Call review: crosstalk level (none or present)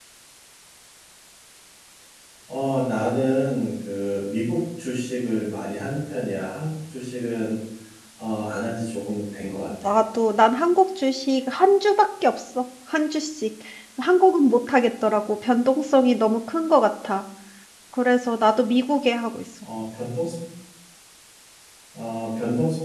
none